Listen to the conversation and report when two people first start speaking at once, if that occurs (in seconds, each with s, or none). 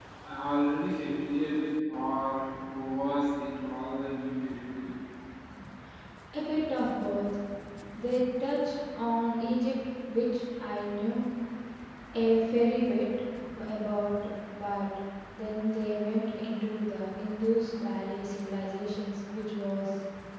none